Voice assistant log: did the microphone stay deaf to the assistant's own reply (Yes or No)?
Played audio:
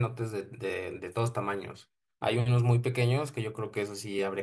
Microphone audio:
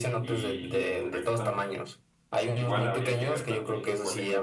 No